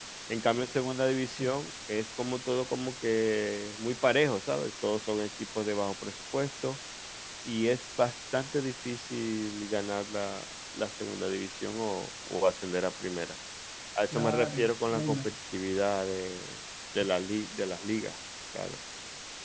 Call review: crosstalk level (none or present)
present